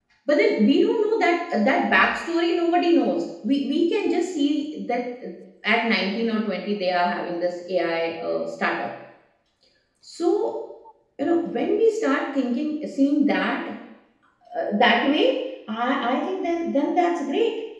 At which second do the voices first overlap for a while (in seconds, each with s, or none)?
none